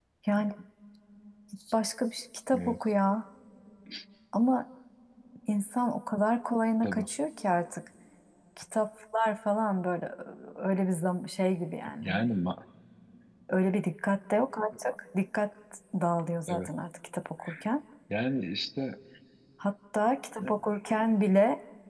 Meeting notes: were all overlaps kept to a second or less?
Yes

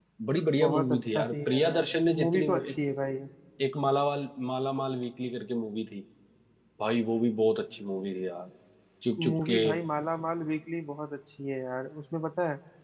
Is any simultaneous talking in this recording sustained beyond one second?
Yes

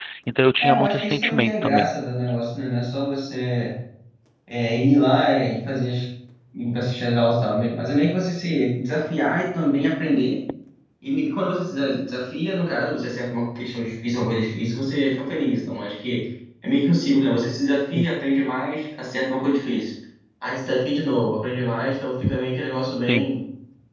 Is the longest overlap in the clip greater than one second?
Yes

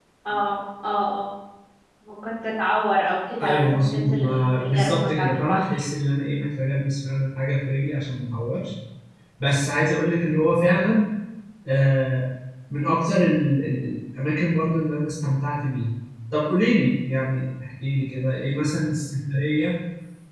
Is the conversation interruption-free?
No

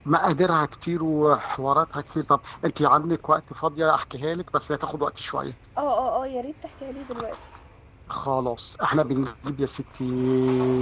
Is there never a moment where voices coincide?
Yes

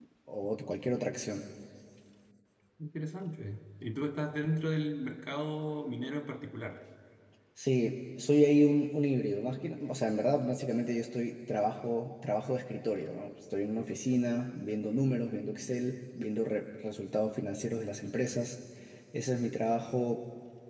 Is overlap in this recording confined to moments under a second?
Yes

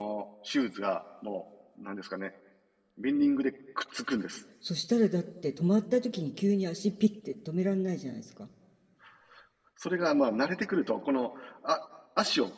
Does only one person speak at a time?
Yes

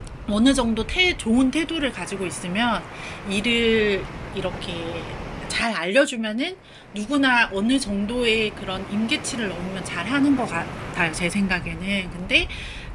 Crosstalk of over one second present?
No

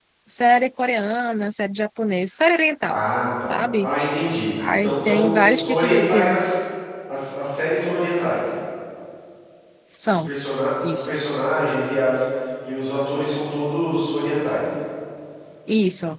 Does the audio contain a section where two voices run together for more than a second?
Yes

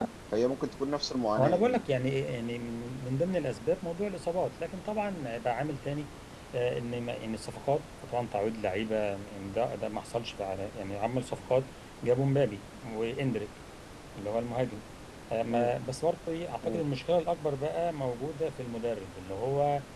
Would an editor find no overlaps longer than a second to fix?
Yes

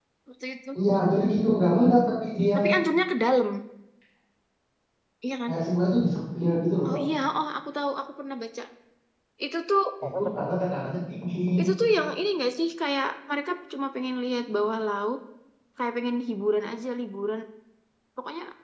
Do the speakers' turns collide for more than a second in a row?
No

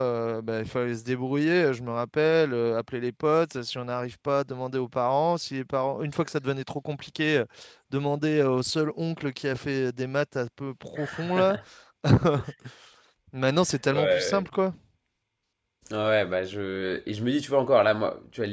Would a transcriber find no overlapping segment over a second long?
Yes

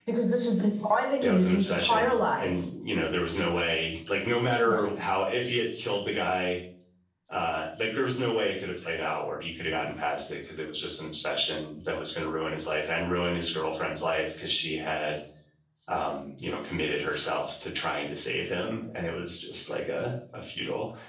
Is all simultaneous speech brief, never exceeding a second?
No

